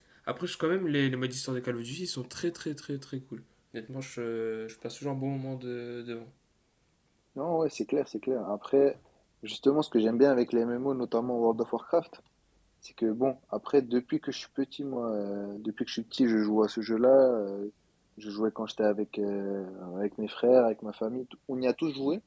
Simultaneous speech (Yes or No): No